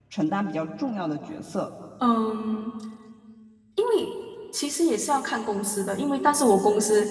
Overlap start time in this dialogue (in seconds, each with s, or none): none